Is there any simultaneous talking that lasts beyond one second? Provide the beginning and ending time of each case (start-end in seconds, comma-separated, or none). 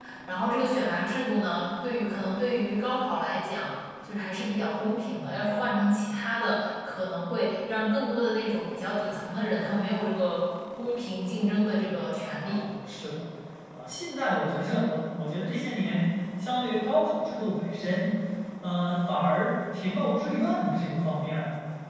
none